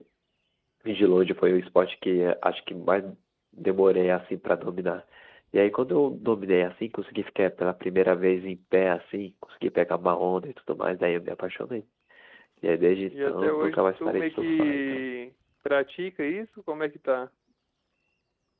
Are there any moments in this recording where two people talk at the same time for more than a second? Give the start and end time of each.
13.1-15.0

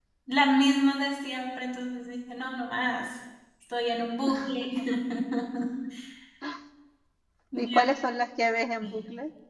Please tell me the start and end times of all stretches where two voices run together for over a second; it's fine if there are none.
none

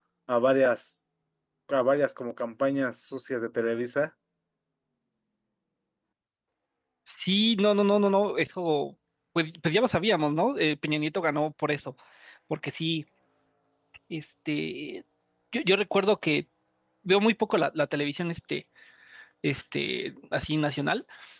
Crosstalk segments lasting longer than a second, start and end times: none

